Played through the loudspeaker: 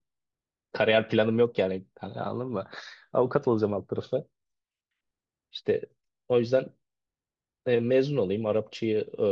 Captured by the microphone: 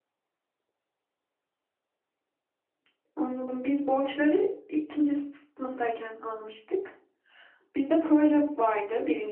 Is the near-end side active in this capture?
Yes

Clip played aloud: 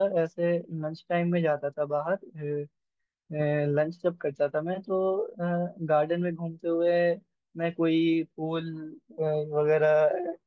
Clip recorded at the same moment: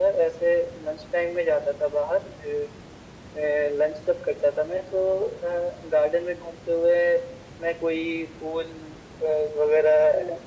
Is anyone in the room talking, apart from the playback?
No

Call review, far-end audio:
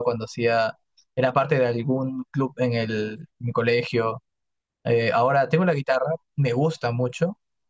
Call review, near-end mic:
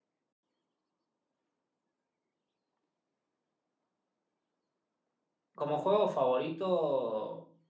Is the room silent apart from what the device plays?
No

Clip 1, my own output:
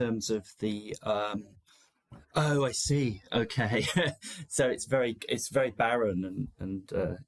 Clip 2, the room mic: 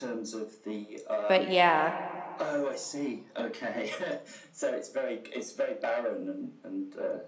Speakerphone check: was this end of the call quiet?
No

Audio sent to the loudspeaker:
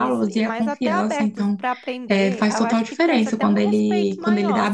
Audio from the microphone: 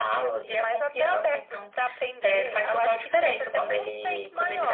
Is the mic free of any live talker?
Yes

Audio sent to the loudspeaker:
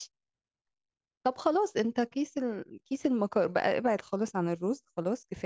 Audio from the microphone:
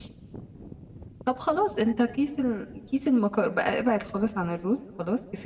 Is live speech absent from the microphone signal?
Yes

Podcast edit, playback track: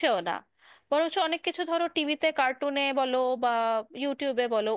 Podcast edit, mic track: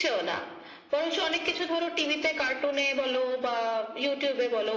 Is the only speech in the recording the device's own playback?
Yes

